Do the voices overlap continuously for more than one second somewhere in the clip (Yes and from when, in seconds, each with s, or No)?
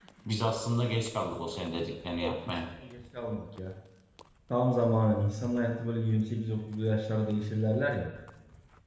No